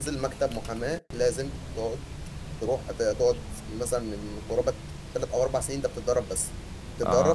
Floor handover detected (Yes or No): No